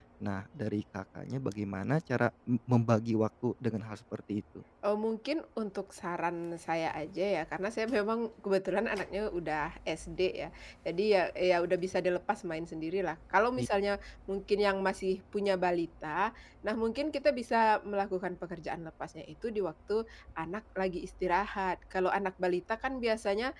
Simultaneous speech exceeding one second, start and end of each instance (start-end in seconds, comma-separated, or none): none